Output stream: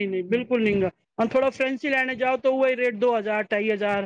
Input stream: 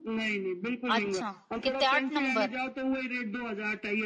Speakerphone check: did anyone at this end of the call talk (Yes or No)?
Yes